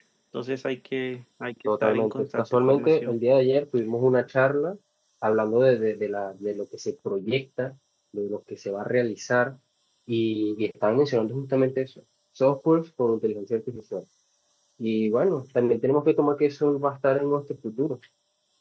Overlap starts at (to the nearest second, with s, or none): 2 s